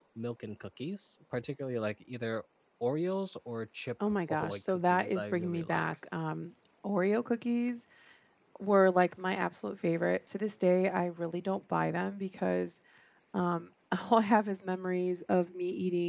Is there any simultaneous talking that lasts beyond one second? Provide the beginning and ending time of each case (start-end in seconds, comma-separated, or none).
4.1-5.9